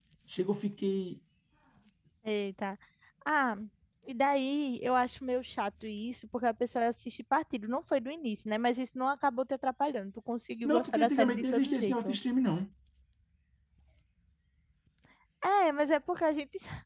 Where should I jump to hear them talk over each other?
10.6 s

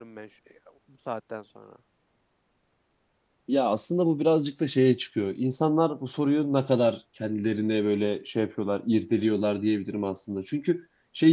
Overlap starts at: none

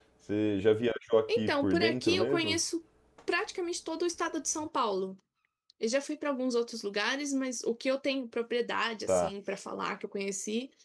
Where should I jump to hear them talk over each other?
1.3 s

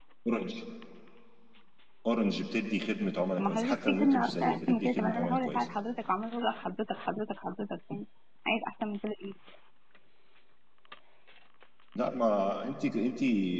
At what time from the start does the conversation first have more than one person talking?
3.3 s

